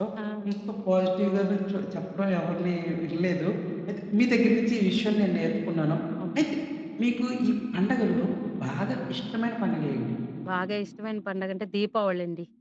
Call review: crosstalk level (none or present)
none